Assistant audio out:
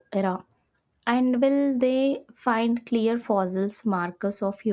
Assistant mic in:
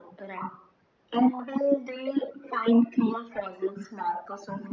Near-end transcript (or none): none